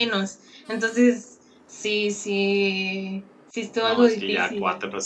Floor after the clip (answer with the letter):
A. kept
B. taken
B